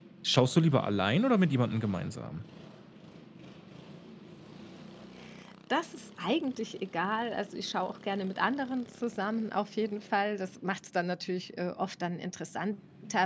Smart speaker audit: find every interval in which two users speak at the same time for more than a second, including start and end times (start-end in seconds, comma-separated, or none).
none